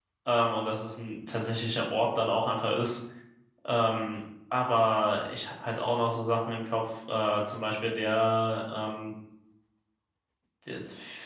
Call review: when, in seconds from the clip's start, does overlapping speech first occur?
none

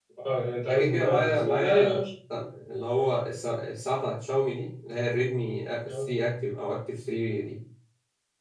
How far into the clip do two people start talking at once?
0.7 s

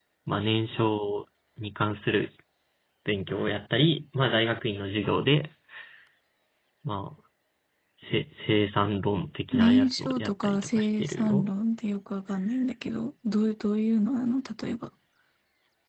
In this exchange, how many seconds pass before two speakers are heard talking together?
9.5 s

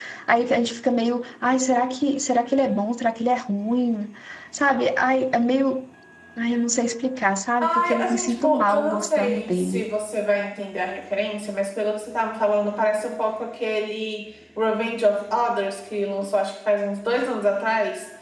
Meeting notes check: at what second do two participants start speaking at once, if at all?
7.6 s

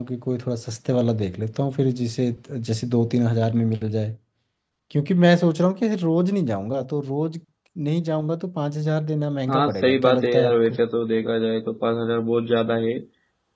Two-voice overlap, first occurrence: 9.5 s

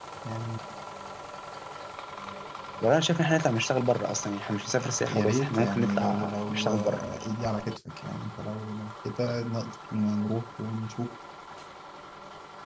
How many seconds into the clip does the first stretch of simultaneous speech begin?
4.8 s

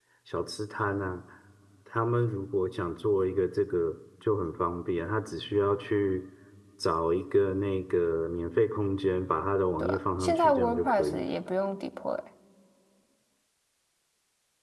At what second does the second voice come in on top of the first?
9.8 s

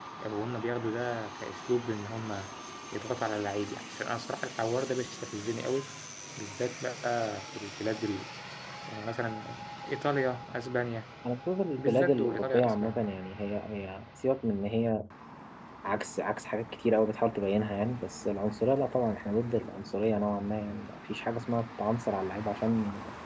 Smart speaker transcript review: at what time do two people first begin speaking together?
11.8 s

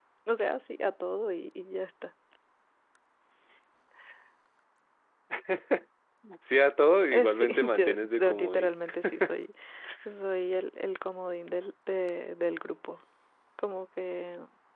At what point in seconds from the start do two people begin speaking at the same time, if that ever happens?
7.1 s

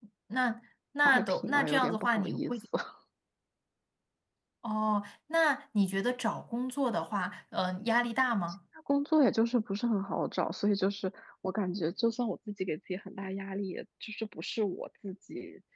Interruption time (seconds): 1.1 s

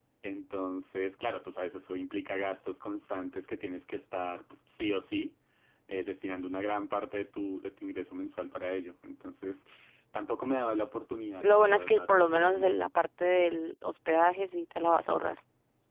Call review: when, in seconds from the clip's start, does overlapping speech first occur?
11.4 s

